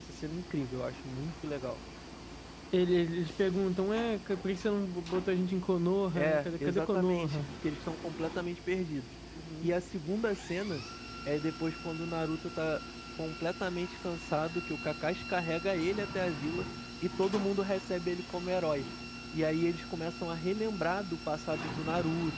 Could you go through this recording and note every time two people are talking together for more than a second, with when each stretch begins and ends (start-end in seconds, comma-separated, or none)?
6.2-7.4